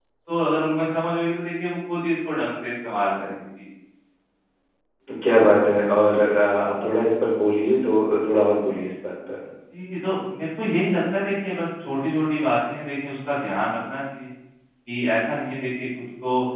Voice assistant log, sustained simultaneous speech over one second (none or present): none